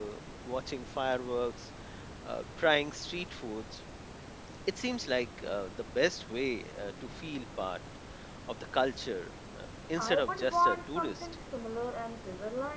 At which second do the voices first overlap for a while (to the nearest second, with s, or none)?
10 s